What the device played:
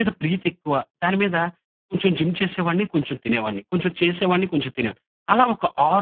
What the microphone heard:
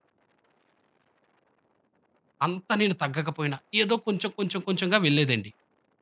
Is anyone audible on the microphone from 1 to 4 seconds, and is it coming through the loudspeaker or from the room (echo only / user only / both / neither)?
user only